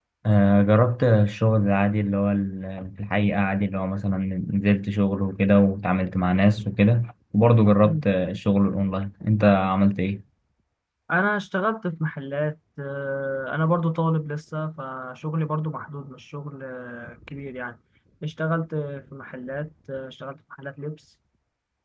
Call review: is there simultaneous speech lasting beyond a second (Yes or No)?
No